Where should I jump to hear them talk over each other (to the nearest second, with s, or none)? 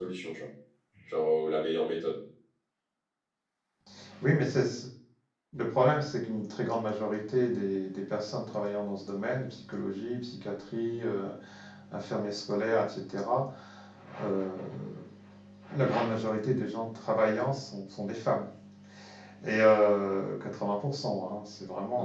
none